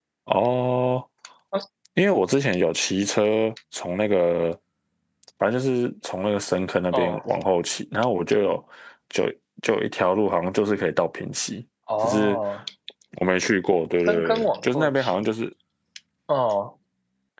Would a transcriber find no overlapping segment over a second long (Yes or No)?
No